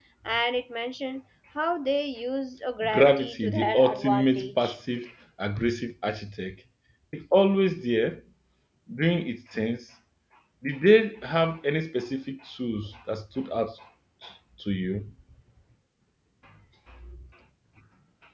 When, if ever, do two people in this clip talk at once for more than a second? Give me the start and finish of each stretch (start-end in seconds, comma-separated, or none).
2.9-4.8